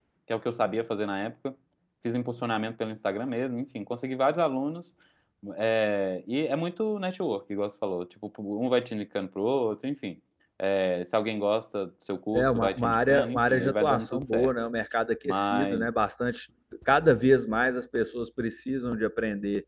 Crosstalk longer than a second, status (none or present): present